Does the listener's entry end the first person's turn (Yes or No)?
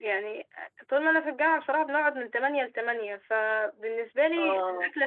No